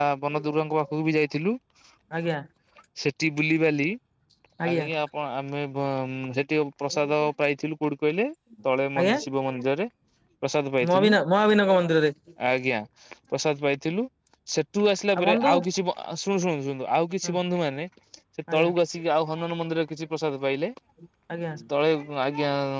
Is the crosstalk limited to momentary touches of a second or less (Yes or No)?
Yes